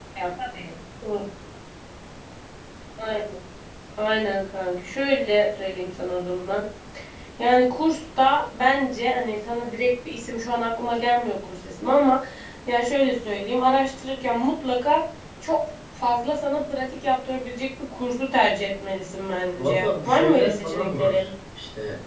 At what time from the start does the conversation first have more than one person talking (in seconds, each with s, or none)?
19.6 s